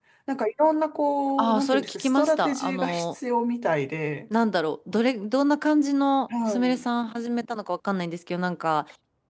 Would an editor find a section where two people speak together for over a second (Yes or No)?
Yes